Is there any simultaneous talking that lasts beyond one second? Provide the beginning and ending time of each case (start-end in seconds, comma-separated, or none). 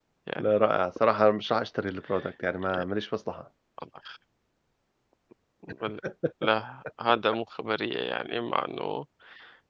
none